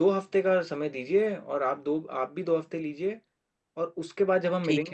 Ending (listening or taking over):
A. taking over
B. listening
B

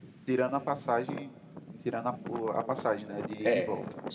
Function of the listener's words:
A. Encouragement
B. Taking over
B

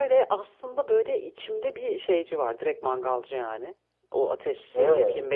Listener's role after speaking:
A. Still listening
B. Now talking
A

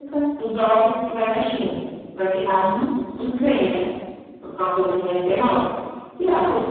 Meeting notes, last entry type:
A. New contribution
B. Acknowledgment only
B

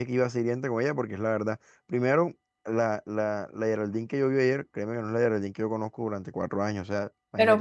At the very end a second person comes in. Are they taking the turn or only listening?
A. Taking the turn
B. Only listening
A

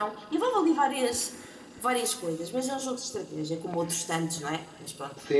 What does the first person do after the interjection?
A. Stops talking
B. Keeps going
A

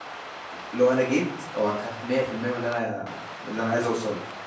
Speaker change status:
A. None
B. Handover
B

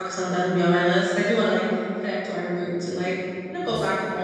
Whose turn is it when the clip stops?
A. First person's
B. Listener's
A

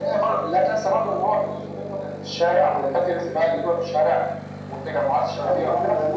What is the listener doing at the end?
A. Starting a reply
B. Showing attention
A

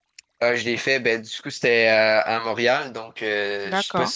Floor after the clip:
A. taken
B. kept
B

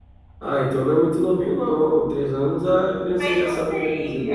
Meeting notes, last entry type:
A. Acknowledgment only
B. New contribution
B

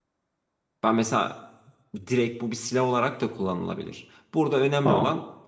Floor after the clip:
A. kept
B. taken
A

